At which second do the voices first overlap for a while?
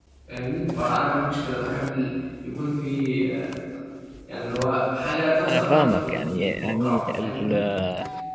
5.5 s

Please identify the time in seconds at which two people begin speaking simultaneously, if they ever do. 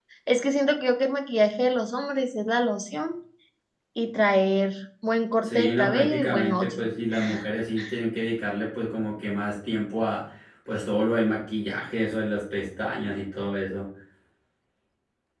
5.4 s

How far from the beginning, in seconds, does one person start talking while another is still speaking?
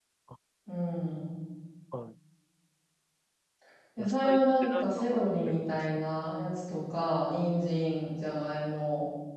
4.0 s

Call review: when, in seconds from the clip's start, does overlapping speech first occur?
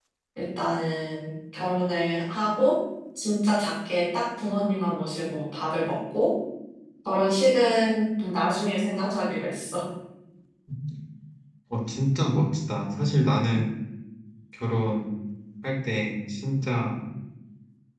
none

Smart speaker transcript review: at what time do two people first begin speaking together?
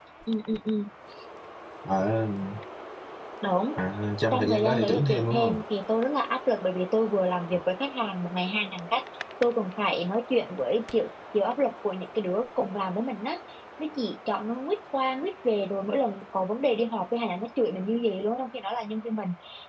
4.3 s

